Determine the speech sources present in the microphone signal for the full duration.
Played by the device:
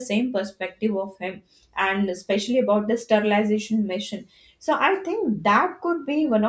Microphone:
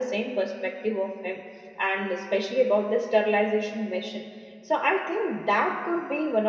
echo only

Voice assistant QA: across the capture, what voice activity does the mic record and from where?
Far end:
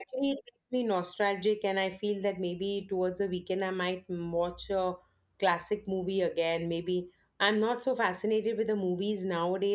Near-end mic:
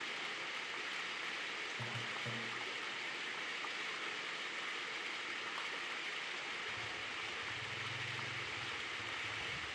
neither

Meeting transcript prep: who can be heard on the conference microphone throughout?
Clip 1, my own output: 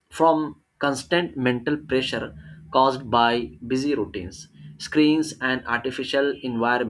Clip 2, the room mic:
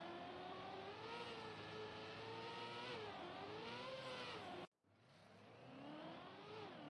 neither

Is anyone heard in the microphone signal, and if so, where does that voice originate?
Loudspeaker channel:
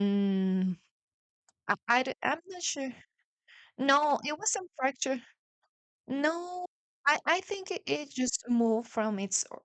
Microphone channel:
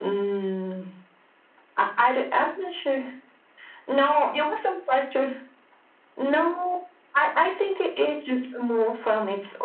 echo only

